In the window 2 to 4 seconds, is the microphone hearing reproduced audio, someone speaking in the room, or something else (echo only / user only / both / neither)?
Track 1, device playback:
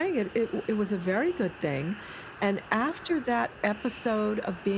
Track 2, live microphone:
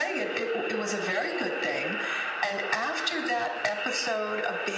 echo only